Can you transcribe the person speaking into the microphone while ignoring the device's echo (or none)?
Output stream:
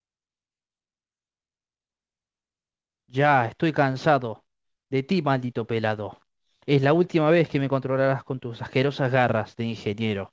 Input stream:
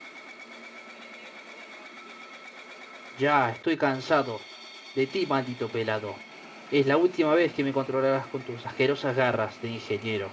none